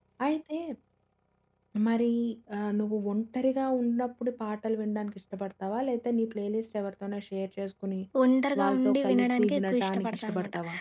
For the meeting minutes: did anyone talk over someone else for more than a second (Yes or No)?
Yes